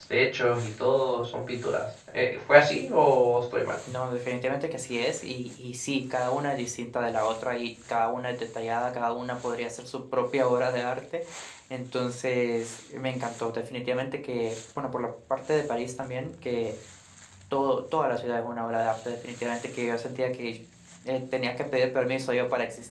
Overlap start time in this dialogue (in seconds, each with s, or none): none